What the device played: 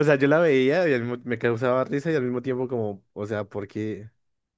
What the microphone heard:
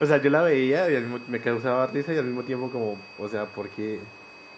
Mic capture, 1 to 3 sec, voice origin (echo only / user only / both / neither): echo only